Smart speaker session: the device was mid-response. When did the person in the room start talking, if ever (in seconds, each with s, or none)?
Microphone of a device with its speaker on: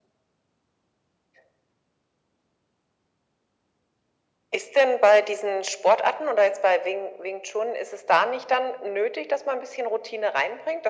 none